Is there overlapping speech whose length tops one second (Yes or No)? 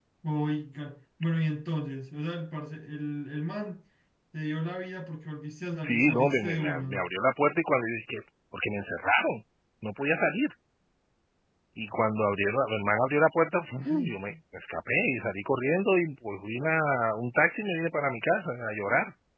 Yes